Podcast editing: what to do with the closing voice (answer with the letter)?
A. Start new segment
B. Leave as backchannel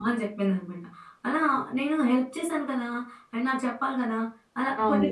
A